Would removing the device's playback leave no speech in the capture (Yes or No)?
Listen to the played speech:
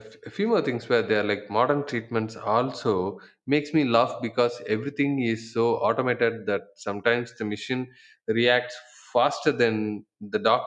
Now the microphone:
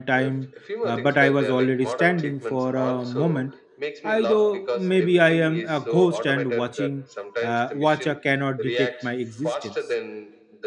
No